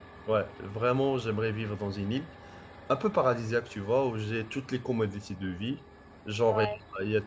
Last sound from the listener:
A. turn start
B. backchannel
B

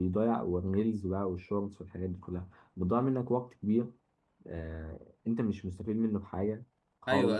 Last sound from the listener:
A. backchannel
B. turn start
B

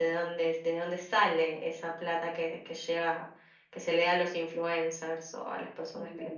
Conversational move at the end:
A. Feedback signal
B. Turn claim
B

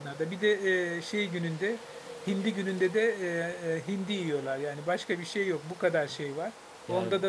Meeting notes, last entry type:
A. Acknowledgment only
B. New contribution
A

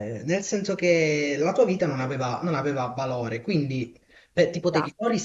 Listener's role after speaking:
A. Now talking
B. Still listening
B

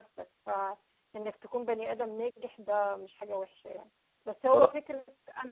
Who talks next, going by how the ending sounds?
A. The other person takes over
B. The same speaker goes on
B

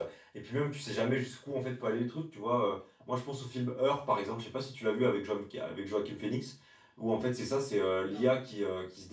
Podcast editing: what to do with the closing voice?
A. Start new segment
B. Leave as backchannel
B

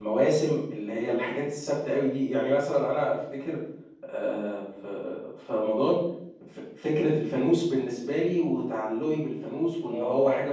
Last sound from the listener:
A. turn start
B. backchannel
A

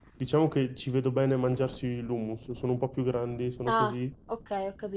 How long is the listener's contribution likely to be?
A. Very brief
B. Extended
B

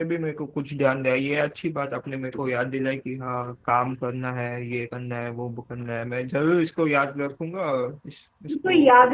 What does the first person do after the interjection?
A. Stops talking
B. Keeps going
A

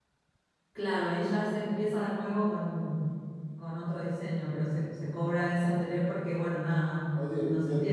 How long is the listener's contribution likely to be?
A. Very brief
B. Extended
B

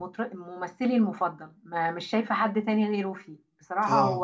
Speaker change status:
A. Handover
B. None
B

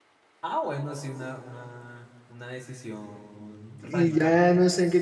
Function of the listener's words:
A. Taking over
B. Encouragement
A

